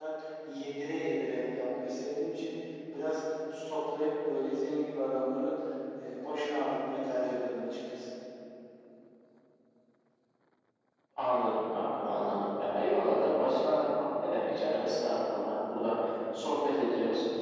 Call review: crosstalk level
none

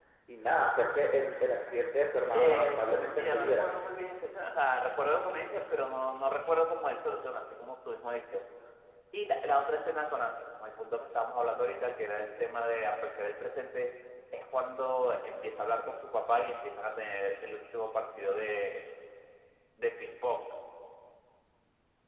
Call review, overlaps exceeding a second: present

